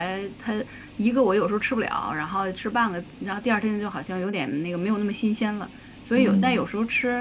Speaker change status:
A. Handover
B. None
B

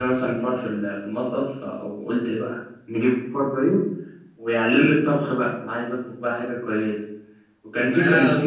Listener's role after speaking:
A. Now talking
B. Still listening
B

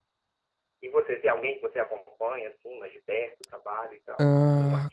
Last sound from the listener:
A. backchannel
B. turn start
B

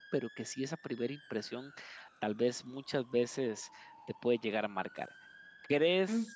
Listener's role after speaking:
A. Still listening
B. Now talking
A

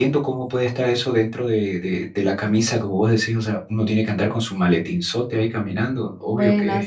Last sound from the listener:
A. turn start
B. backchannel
A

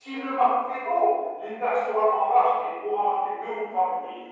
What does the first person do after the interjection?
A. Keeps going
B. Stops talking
A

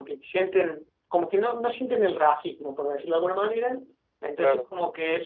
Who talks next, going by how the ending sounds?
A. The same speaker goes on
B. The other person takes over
A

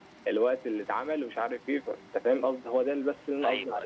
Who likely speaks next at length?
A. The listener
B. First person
A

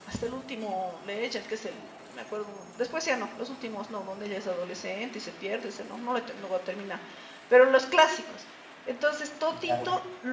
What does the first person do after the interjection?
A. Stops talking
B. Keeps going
B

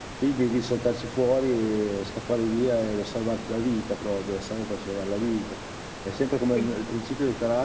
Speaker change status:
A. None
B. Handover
A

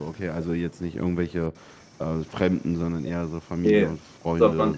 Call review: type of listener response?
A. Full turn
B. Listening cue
A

